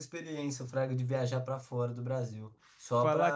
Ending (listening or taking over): listening